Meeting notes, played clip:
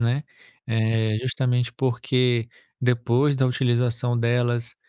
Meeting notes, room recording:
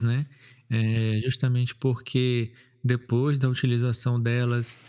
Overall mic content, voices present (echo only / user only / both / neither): echo only